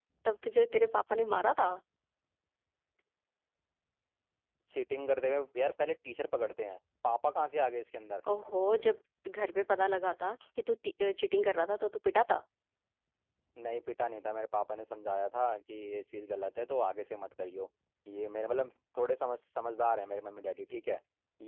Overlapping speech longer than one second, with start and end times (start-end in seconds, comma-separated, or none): none